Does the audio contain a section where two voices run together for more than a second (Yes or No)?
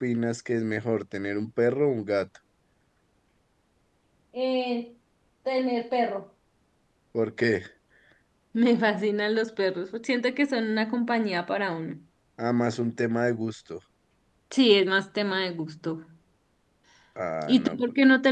No